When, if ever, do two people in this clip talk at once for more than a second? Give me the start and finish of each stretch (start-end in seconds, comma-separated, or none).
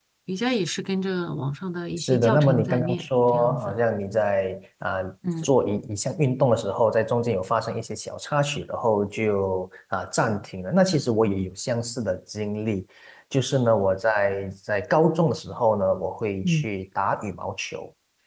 2.0-3.7